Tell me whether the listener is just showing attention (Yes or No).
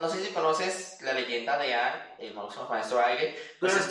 Yes